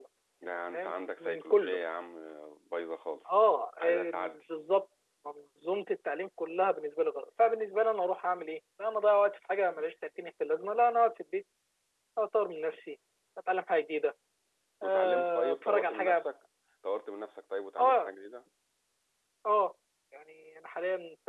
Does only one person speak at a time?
No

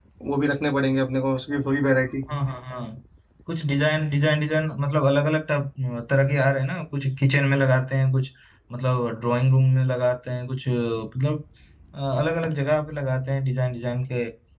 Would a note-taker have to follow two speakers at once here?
No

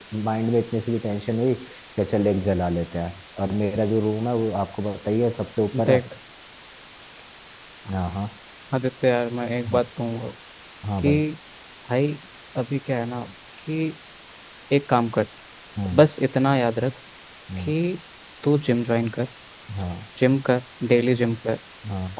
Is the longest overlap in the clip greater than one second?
No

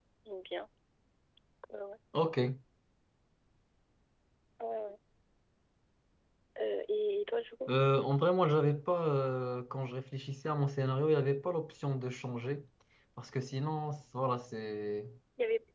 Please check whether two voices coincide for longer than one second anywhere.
No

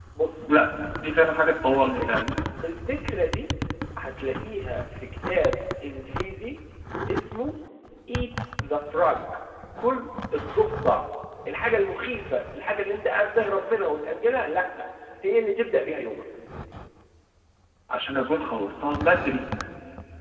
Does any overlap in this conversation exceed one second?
No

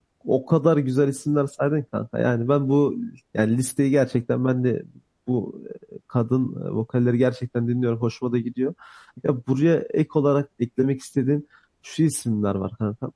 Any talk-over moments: No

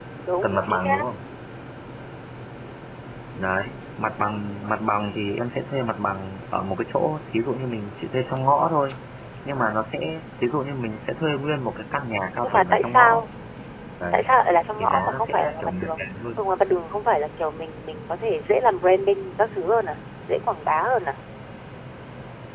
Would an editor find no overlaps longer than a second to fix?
No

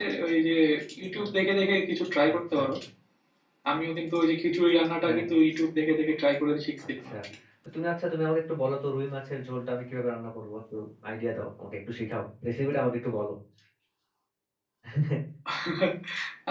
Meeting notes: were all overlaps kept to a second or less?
Yes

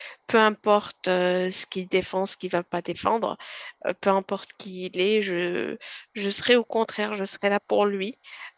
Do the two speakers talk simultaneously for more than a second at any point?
No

